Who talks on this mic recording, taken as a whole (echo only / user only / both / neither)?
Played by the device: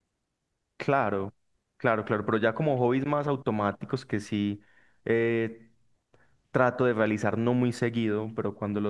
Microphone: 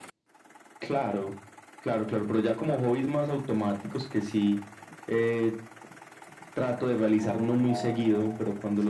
both